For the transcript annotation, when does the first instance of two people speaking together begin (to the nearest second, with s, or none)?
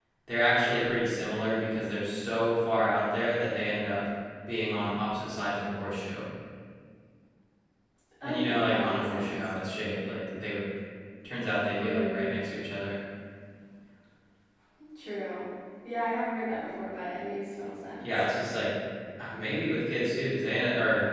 8 s